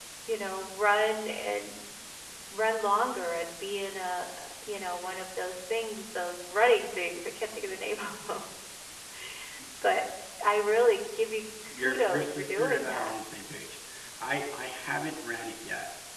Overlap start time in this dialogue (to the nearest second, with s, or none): 12 s